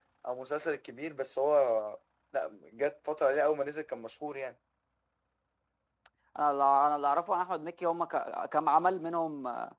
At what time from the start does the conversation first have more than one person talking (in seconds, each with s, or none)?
none